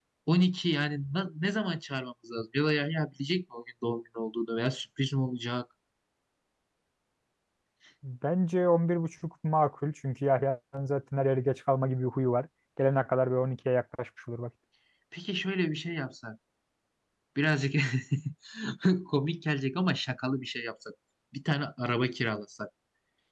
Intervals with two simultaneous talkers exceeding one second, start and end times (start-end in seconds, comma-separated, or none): none